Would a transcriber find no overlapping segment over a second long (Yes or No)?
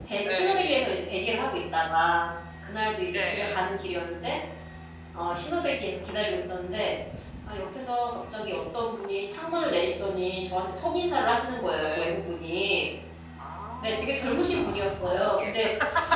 No